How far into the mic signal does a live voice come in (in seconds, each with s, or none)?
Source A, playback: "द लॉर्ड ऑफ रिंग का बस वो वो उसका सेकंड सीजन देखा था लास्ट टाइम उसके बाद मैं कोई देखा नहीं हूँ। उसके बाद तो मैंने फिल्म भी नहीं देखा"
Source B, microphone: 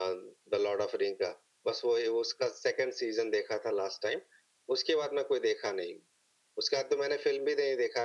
none